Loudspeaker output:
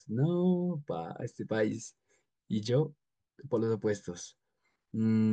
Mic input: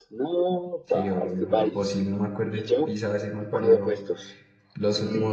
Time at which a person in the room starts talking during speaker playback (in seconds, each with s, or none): 0.8 s